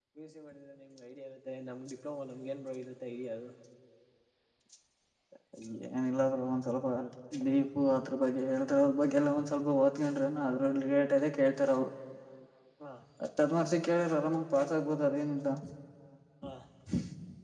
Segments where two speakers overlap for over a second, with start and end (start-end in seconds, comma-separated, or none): none